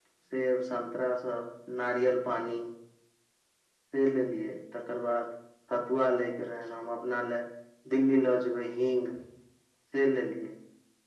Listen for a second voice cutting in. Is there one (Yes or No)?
No